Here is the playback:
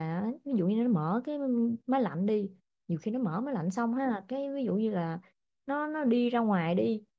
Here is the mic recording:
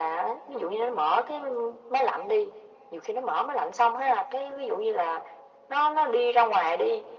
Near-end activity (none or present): none